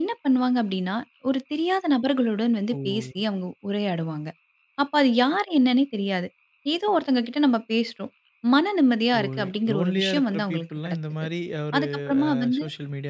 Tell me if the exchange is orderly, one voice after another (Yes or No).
No